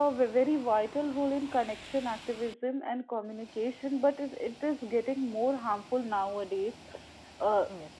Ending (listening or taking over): listening